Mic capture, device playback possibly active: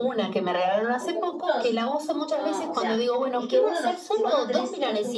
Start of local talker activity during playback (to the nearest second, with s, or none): 1 s